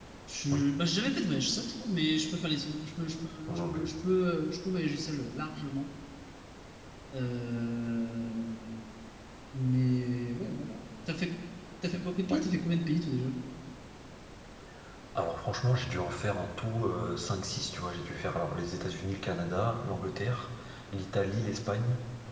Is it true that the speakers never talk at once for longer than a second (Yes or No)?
Yes